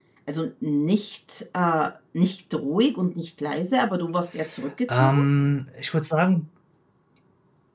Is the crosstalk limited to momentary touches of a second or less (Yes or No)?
Yes